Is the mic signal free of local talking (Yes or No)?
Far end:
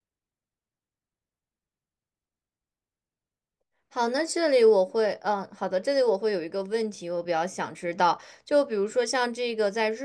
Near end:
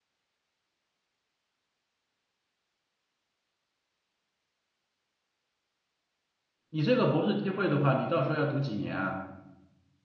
No